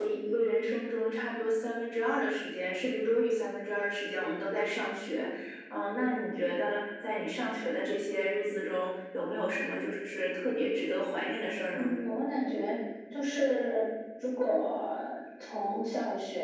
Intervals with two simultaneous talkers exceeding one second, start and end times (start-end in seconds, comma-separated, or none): none